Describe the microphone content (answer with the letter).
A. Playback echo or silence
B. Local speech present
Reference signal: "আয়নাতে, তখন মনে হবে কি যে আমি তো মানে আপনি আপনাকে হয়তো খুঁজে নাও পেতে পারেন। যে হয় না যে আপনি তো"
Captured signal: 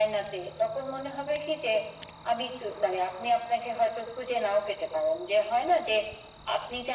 A